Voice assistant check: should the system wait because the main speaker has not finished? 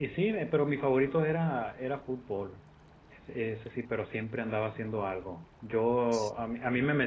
Yes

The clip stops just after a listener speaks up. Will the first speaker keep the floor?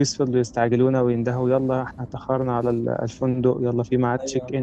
Yes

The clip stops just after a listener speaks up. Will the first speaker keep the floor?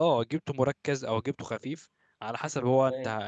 Yes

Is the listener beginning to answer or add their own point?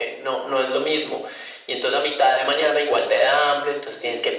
No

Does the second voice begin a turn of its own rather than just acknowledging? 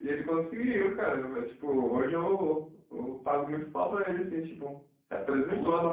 No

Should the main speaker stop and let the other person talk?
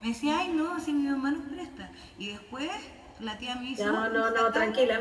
Yes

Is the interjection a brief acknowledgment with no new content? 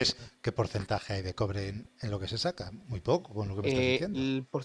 No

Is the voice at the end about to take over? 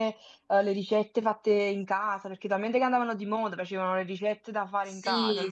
Yes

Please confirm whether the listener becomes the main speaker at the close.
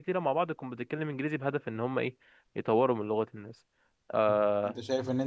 Yes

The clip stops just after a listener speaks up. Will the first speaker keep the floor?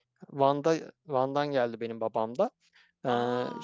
Yes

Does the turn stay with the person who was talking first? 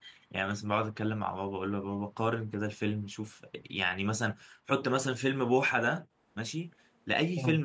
Yes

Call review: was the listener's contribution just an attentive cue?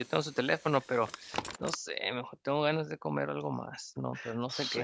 No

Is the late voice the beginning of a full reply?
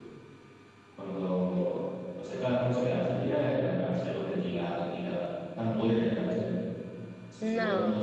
No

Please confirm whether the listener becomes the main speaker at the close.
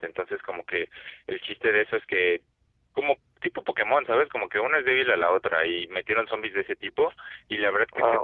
No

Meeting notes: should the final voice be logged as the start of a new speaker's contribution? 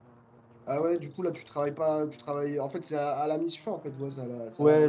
Yes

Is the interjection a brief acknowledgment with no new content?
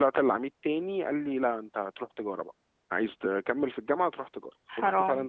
Yes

